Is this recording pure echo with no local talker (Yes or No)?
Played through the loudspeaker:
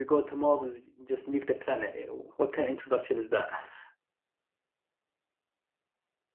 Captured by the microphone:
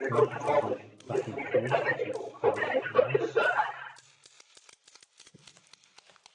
No